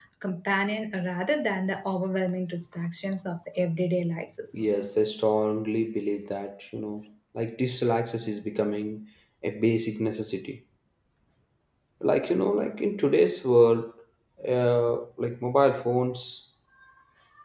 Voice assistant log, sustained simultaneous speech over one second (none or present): none